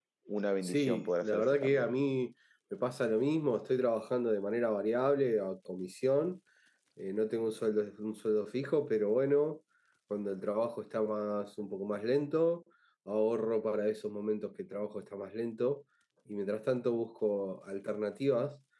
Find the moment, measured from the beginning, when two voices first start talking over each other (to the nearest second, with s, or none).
1 s